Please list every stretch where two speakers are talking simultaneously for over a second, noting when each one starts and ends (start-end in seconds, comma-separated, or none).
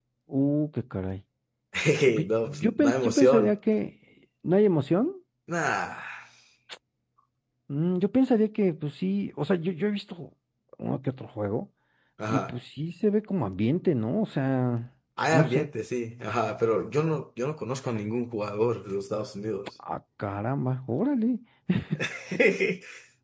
2.2-3.5